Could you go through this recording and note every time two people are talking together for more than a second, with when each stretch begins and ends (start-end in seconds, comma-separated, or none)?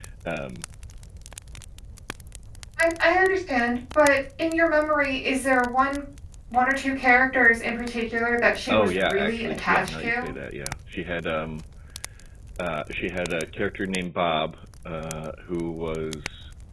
8.7-10.3